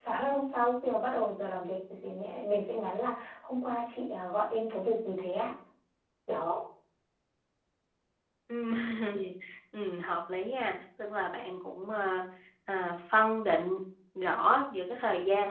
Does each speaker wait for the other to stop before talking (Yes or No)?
Yes